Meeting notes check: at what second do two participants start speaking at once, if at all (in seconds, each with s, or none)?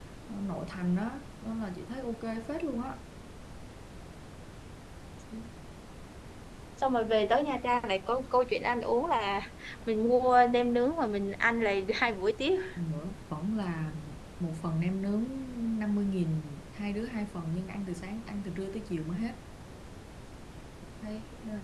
none